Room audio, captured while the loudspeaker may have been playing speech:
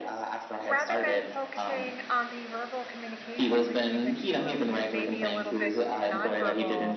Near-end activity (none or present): present